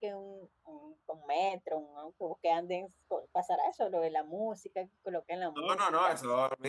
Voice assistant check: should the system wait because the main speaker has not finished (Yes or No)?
No